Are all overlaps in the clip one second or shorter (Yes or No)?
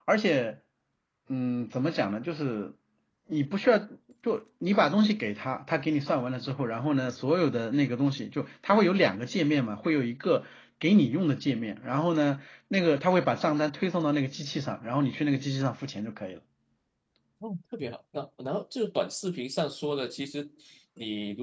Yes